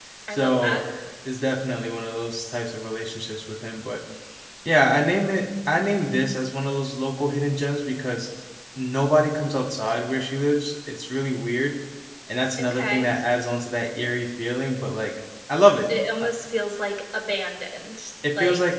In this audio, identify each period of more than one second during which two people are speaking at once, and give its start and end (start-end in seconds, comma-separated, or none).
none